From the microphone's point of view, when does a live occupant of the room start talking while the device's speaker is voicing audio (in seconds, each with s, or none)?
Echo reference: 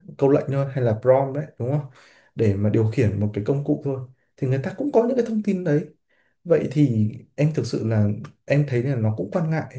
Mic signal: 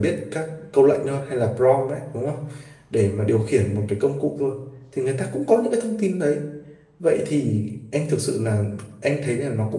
none